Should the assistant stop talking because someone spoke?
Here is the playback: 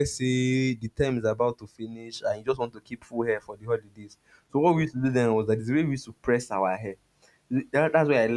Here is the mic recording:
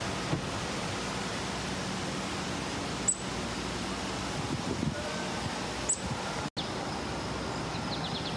No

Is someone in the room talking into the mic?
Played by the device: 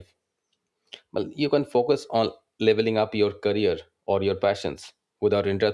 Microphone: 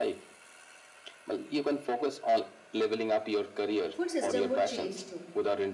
Yes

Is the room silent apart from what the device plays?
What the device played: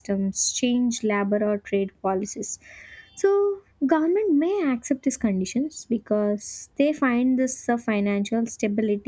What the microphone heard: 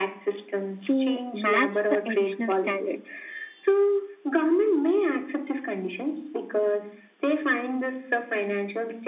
No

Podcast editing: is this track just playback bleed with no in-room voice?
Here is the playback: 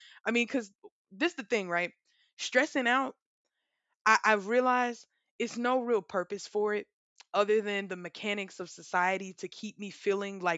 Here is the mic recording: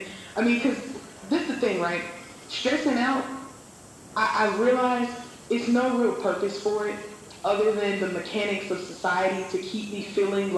Yes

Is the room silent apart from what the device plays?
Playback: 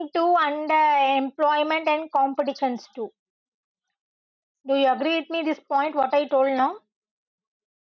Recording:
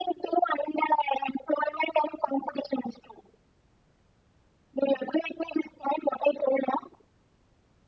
Yes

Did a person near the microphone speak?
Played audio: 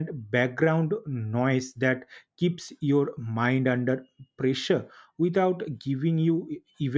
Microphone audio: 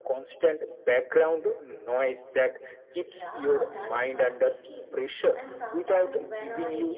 Yes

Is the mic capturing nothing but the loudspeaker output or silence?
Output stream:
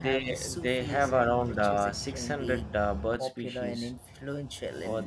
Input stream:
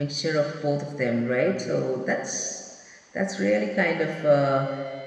No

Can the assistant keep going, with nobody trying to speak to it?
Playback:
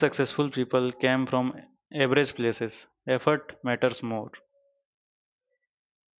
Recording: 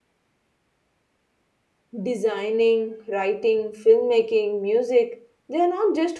No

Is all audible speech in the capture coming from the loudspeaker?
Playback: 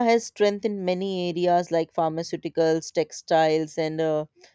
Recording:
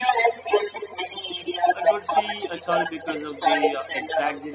No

